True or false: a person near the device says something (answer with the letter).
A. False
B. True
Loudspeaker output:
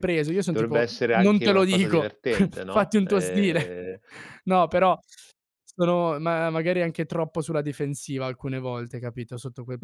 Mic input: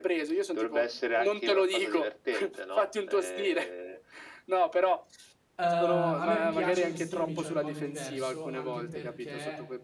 B